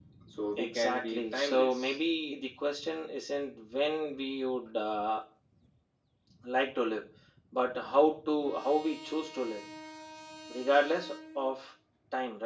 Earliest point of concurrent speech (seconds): 0.6 s

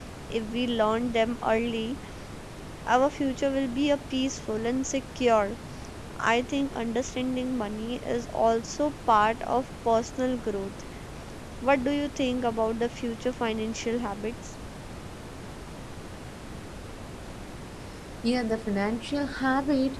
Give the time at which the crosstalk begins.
none

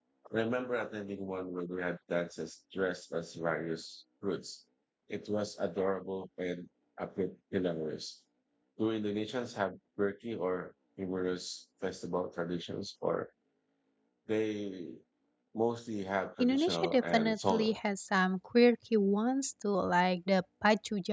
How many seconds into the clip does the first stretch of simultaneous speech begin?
16.4 s

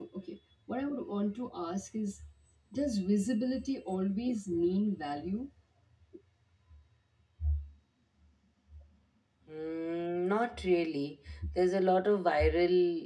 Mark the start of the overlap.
none

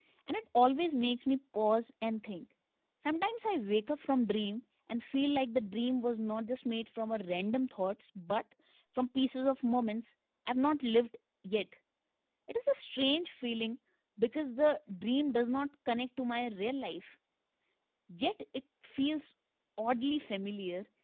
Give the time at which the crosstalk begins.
none

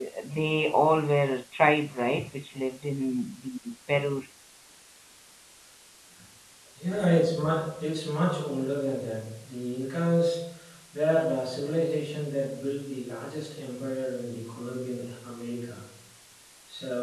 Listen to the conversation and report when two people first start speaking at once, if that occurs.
none

